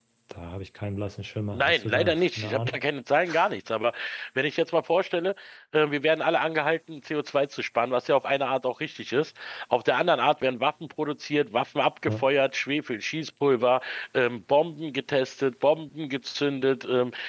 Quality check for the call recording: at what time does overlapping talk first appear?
2 s

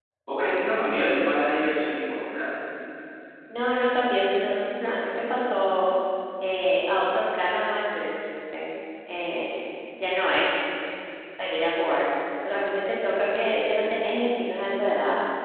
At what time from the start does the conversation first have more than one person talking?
none

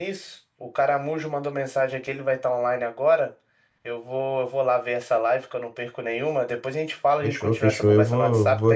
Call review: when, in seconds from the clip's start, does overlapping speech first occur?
7 s

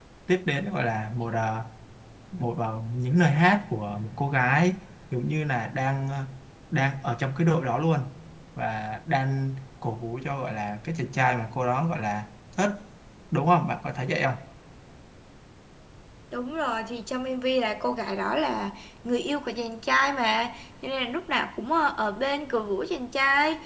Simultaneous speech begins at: none

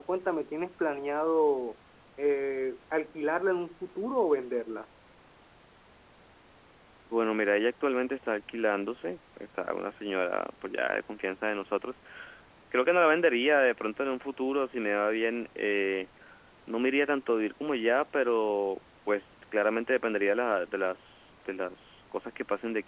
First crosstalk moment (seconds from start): none

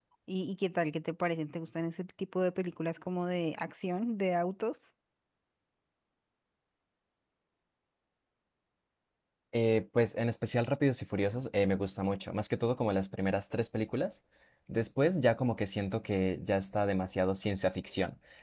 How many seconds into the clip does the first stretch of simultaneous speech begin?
none

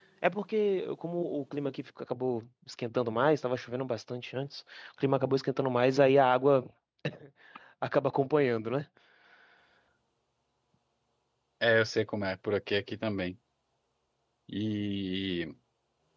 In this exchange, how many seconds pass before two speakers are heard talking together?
none

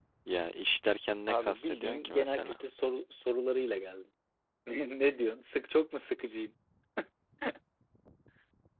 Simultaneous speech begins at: 1 s

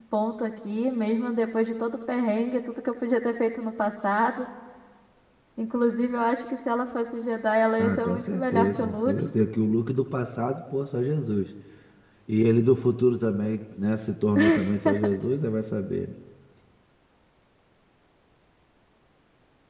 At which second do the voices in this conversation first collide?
8 s

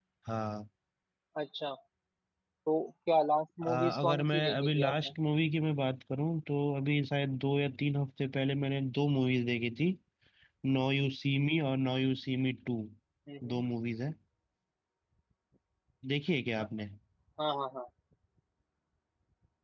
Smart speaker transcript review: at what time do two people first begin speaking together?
4 s

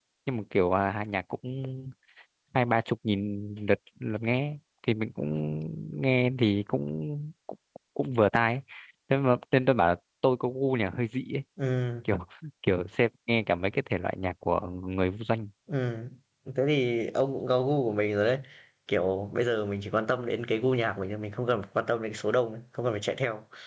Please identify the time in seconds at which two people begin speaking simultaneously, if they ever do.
none

